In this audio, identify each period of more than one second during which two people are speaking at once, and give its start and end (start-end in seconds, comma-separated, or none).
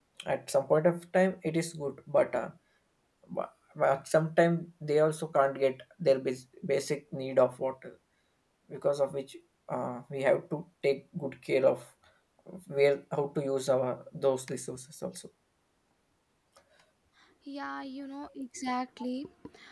none